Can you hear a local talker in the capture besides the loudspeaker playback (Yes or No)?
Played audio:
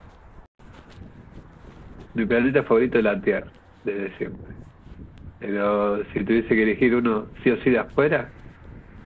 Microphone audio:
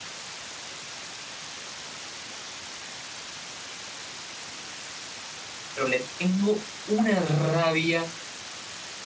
Yes